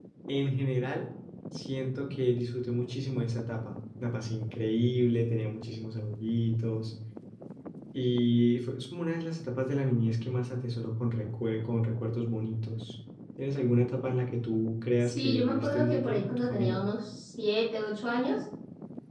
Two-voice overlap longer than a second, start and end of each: 15.0-16.8

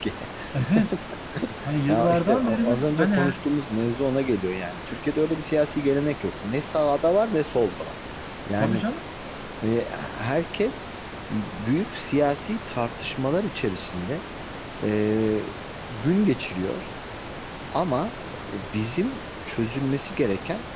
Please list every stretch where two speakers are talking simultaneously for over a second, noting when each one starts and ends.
1.9-3.2

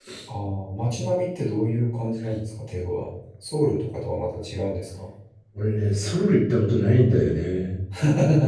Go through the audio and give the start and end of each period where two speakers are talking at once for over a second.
none

